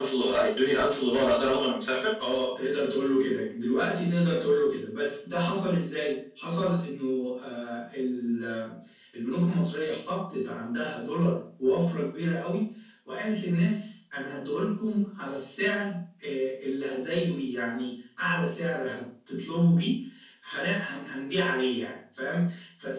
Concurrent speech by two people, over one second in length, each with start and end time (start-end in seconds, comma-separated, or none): none